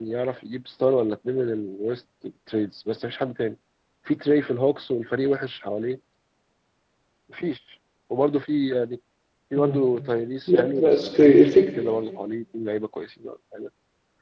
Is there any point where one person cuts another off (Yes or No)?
Yes